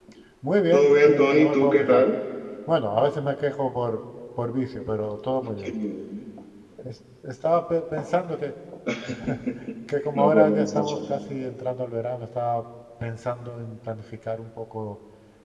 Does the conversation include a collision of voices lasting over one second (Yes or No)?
Yes